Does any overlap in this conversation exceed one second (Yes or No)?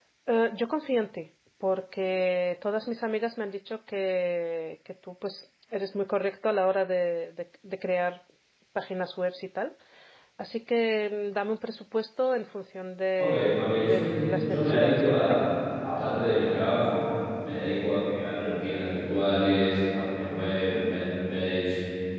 Yes